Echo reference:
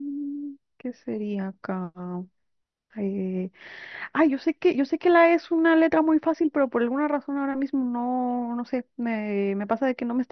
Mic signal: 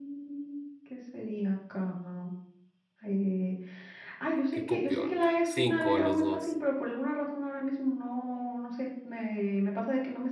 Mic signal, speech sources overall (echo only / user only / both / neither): both